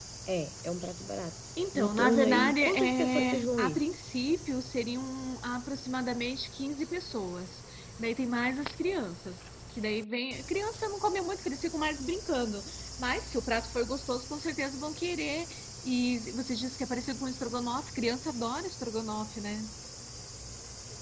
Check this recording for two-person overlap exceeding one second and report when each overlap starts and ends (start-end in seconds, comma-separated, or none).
1.7-3.8